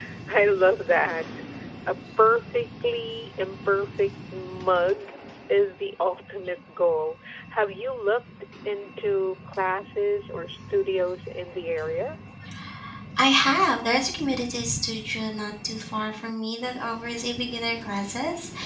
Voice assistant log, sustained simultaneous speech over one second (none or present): none